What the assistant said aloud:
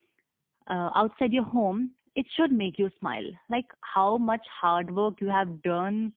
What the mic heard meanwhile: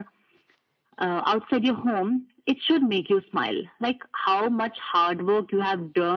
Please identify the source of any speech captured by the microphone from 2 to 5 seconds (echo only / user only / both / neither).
echo only